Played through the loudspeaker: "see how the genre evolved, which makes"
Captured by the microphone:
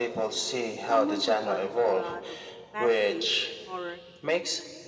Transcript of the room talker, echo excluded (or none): someone who watches a lot of fast-paced horror